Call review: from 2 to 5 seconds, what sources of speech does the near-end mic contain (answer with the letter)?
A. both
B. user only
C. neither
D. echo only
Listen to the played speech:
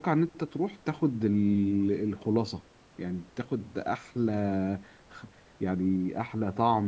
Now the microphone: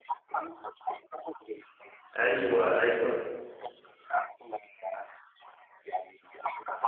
A